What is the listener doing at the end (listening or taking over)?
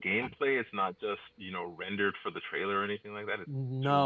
taking over